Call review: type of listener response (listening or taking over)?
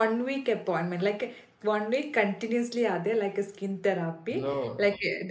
listening